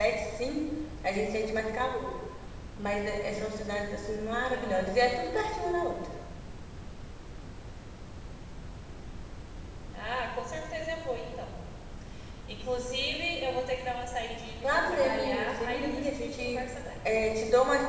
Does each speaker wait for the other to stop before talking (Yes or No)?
No